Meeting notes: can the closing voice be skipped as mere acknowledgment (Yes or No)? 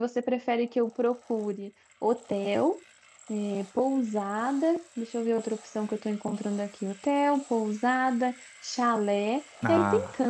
Yes